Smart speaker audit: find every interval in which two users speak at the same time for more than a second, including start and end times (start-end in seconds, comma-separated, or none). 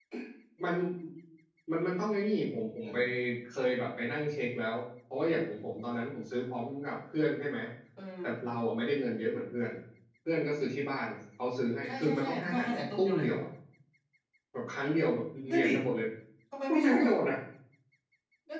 11.8-13.3